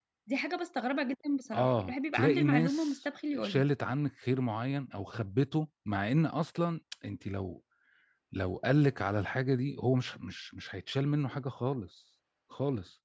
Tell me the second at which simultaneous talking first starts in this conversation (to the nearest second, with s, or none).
2 s